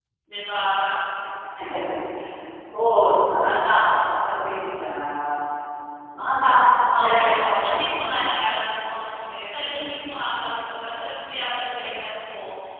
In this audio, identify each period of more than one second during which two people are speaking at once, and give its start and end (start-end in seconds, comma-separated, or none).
6.9-8.2